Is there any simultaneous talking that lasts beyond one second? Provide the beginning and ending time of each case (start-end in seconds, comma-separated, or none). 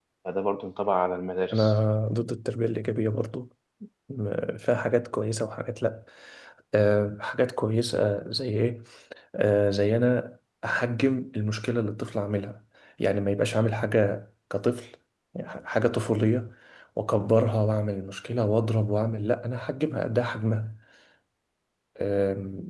none